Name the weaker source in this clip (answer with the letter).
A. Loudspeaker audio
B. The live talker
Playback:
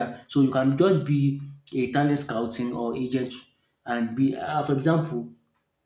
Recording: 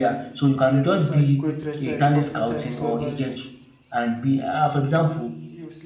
B